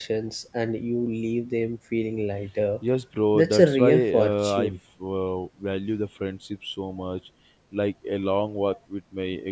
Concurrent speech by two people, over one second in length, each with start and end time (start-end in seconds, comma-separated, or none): 3.4-4.7